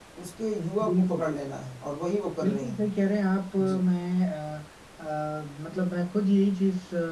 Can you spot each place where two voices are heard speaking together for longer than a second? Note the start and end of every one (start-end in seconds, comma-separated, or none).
none